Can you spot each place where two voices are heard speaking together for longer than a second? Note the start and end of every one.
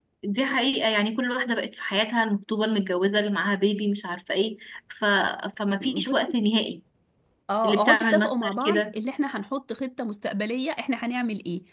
7.6-9.0

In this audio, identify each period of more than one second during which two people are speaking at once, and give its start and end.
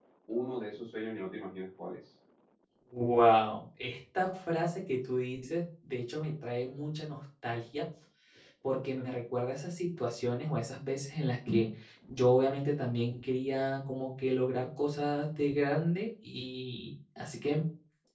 none

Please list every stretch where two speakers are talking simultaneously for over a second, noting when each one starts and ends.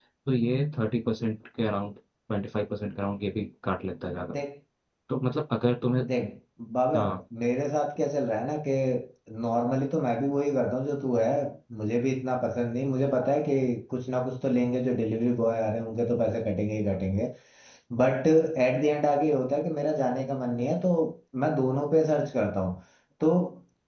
none

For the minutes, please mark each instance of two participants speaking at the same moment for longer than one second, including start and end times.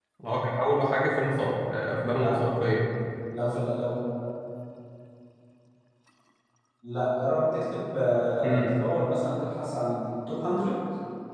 none

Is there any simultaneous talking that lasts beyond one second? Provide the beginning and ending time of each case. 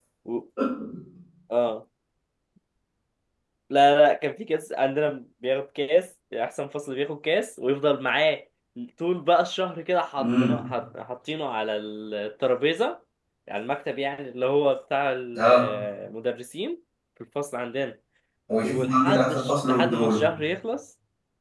18.6-20.2

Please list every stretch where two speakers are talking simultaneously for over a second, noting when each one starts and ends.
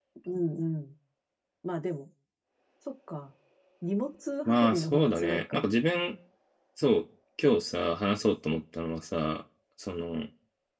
4.5-5.7

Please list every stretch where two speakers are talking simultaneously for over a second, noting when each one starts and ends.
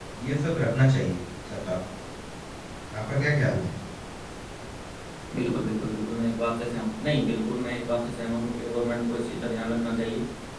none

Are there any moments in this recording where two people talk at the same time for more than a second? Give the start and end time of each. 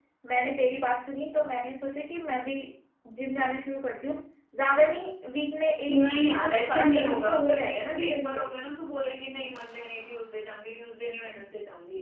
5.9-8.4

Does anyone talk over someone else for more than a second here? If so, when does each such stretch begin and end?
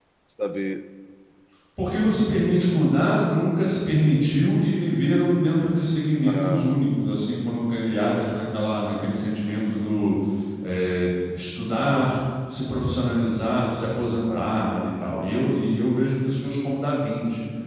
none

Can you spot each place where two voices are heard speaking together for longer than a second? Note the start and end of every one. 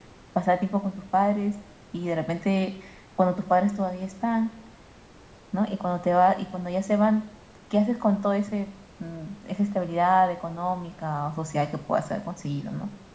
none

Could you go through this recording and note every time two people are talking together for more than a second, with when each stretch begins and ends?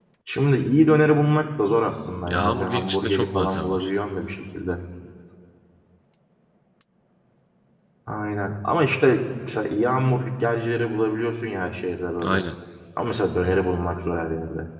2.3-3.9

